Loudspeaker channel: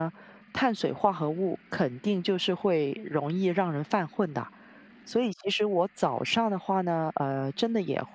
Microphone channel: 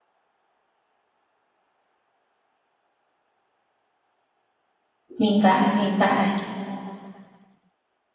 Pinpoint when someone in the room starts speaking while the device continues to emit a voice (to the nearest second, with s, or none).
5 s